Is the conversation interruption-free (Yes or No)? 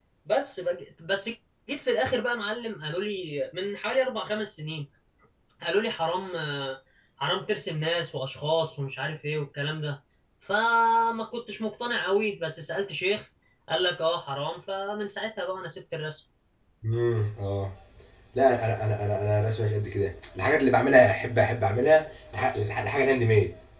Yes